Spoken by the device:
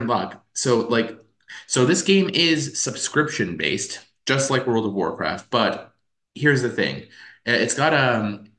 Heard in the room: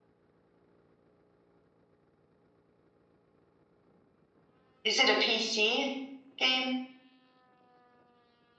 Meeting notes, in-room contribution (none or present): present